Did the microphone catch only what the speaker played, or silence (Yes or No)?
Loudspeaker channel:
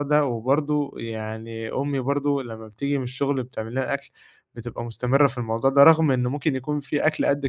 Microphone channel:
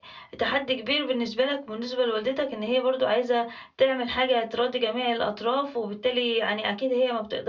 No